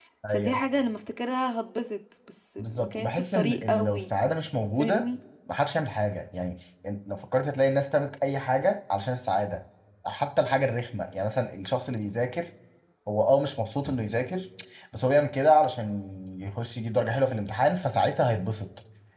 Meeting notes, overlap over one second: present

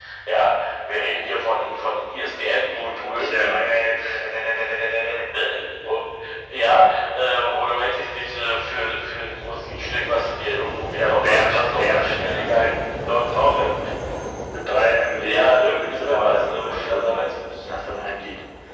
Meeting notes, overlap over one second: present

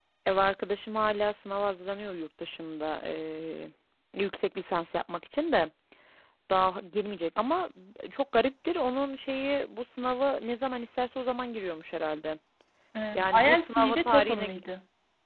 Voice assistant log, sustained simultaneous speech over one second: present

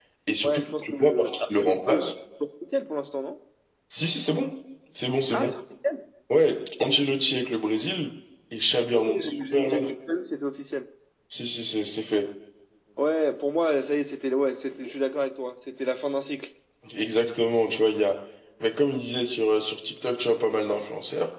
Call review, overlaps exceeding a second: present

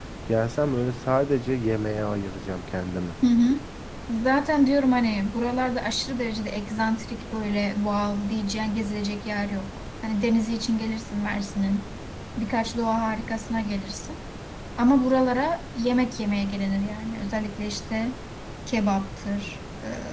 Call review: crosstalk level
none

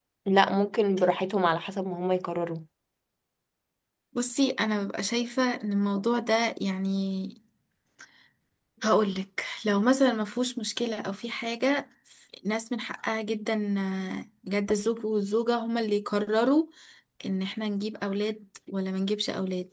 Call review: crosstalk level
none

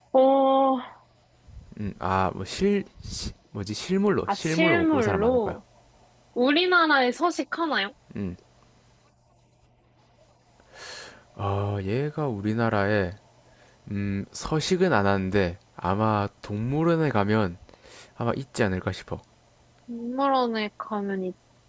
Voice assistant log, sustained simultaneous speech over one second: present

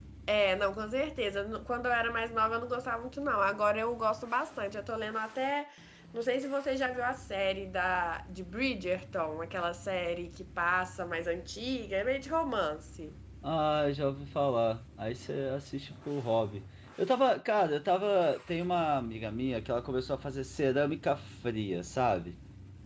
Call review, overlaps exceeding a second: none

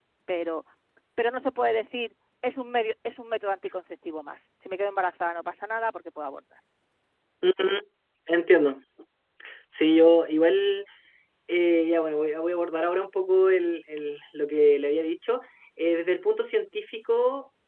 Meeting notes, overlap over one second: none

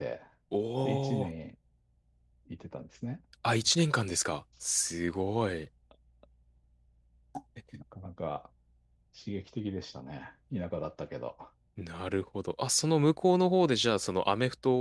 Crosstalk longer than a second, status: none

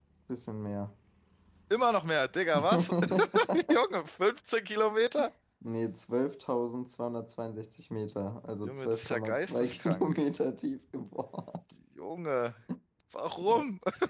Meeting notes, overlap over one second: present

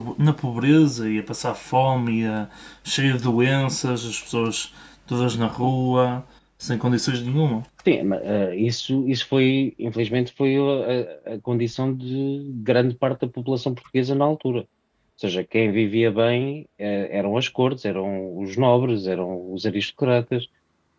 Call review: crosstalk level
none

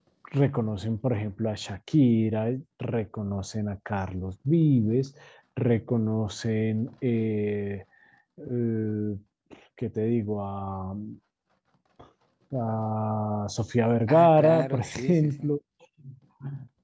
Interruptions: present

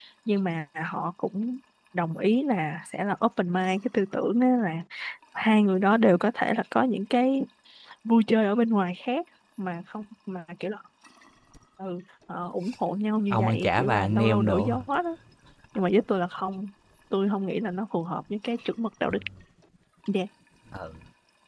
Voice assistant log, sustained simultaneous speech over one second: present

